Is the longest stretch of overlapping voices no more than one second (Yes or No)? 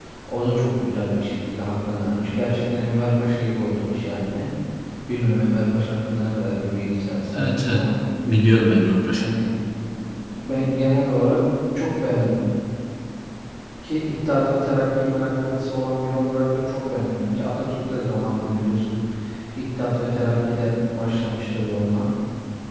Yes